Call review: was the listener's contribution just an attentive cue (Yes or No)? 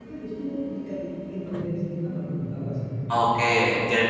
No